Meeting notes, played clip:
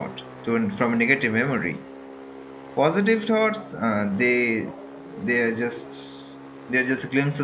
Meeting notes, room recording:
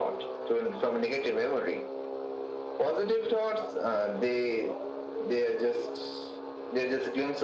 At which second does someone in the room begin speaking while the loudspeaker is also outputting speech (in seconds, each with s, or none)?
none